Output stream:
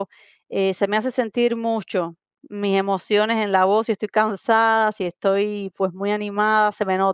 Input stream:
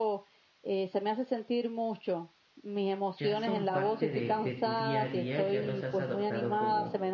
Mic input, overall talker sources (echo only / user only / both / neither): both